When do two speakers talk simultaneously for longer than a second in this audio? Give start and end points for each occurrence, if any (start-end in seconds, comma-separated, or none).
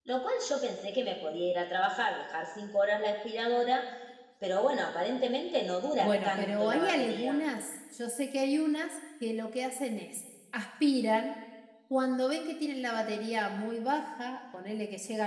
6.0-7.4